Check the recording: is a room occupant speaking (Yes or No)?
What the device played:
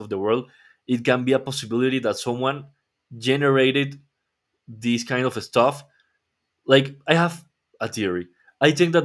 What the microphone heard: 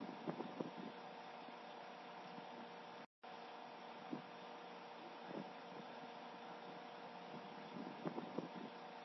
No